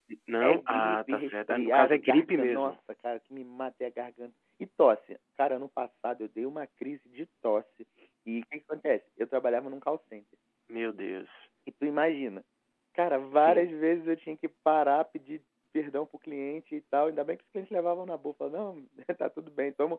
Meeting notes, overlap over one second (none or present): present